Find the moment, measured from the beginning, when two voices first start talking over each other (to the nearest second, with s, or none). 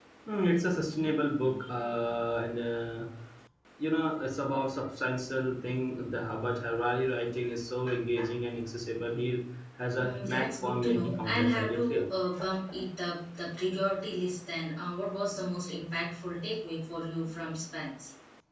10 s